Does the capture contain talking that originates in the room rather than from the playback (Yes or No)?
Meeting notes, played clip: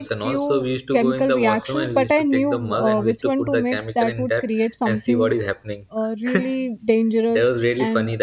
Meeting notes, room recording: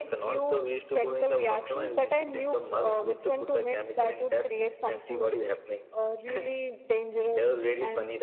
No